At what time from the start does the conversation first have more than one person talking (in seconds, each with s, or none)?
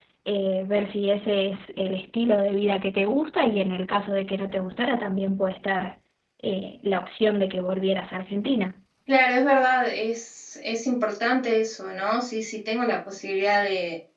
none